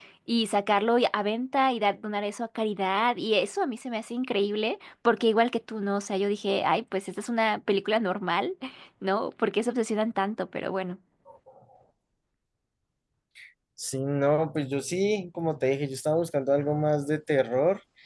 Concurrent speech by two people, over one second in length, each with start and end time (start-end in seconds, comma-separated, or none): none